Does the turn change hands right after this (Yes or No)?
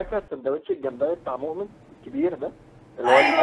Yes